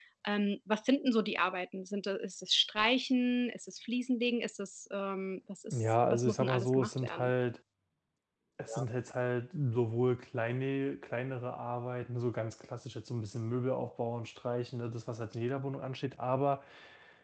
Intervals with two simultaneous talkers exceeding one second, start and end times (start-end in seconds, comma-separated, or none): 5.7-7.3